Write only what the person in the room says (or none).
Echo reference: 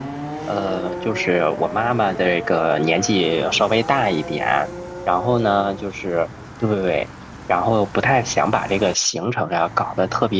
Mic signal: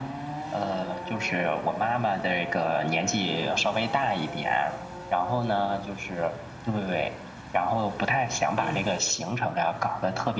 嗯